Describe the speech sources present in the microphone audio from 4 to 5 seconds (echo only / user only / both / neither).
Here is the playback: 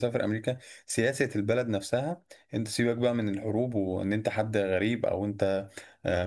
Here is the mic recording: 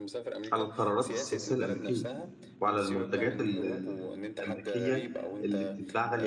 both